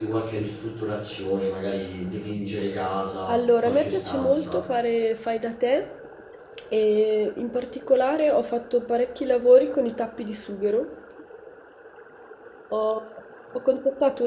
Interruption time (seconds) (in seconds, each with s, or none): 3.3 s